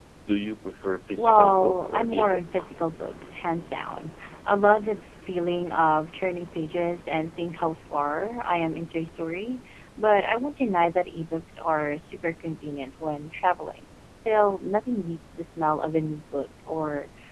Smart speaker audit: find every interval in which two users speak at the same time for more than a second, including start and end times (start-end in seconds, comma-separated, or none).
1.1-2.7